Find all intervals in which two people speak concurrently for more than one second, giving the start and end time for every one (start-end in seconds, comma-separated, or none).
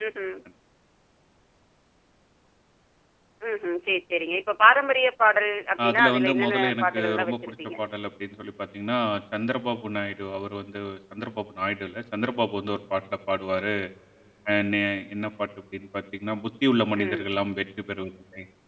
5.9-7.5